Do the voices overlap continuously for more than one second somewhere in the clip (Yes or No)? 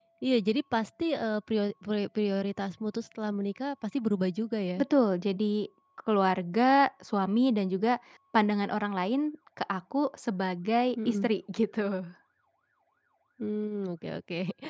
No